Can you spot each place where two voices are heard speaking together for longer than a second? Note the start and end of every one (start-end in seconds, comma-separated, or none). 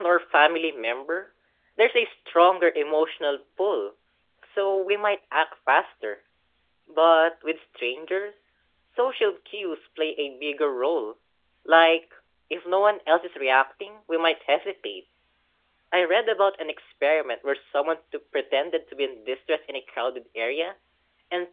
none